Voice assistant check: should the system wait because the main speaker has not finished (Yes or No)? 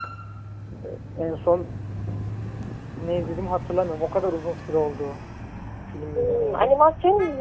No